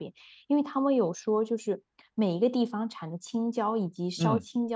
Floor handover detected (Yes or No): No